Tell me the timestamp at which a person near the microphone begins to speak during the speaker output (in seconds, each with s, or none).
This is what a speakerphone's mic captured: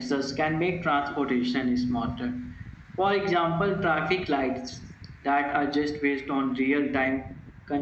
none